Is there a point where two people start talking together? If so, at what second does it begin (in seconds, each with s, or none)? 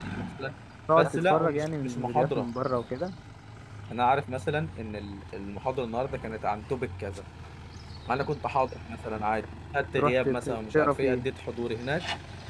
1.0 s